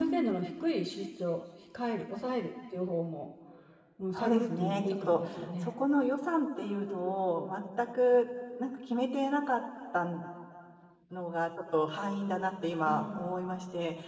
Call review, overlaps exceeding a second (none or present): present